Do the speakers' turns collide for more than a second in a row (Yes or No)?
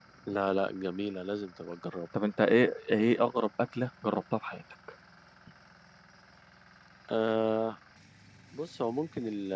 No